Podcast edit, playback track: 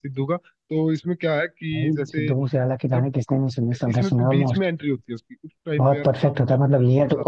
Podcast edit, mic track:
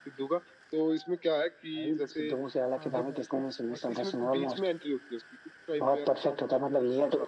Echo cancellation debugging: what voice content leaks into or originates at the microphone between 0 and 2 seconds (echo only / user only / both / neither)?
echo only